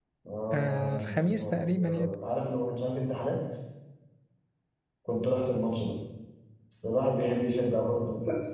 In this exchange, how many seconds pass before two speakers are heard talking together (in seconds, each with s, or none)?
0.5 s